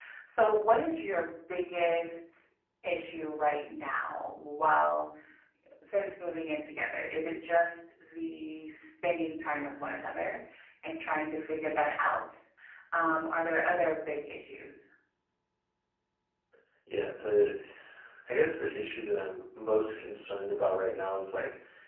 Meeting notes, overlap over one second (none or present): none